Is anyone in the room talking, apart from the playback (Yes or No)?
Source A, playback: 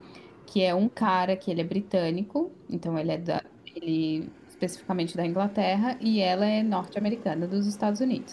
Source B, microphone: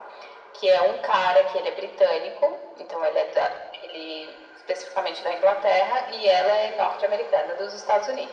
No